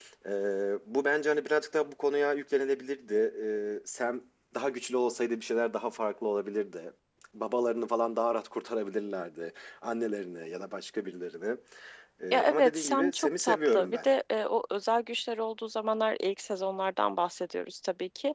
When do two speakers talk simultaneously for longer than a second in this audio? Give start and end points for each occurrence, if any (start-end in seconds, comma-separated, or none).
12.3-14.1